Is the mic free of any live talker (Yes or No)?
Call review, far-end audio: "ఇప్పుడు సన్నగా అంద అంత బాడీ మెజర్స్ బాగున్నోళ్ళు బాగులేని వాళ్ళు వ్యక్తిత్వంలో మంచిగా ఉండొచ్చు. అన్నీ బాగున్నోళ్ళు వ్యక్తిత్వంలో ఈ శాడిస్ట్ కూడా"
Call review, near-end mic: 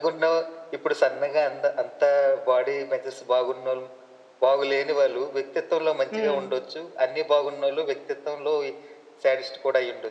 No